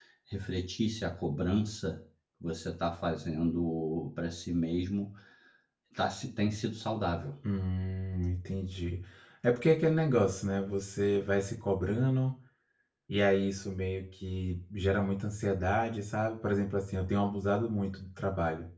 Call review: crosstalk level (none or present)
none